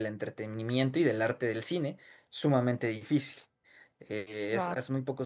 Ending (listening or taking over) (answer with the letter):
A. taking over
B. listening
B